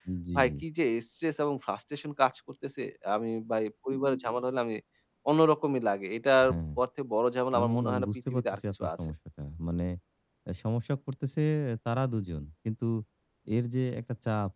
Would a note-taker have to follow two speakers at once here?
Yes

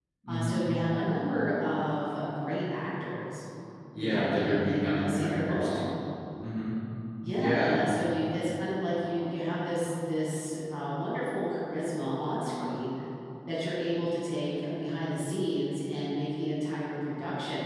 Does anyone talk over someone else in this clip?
Yes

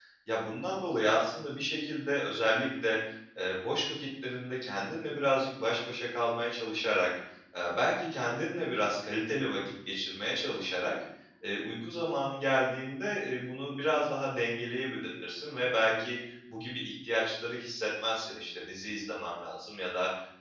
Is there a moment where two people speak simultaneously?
No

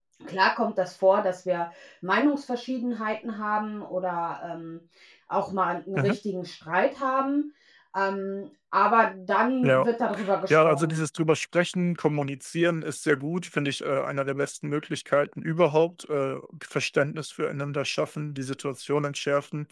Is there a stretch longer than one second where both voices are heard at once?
No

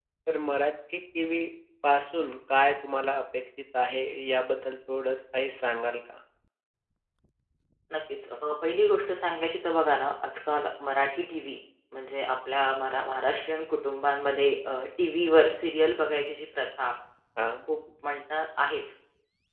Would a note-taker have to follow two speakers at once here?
No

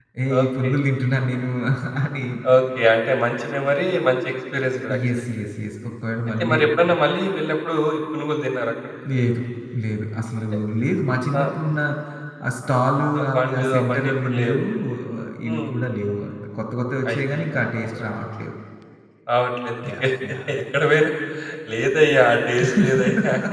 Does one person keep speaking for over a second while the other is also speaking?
Yes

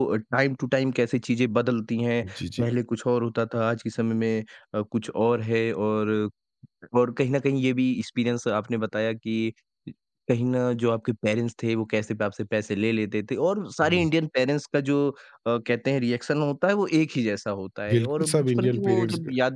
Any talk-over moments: Yes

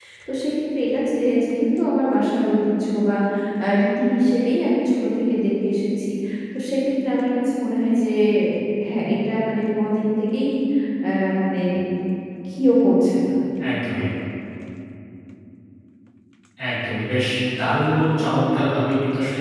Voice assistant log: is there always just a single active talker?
Yes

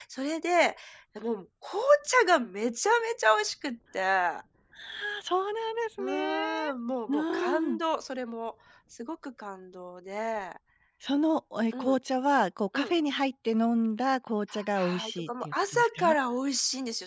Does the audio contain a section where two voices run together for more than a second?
Yes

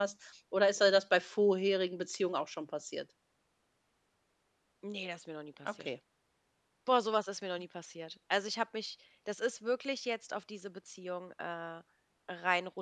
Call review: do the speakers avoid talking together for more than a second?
Yes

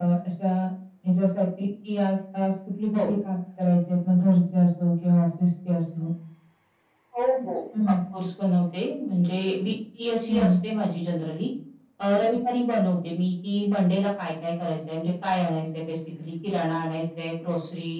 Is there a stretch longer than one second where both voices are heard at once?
No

